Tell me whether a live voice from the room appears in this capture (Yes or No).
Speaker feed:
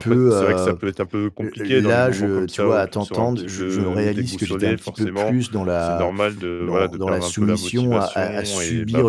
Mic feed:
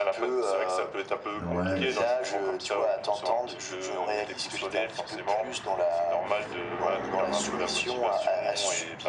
Yes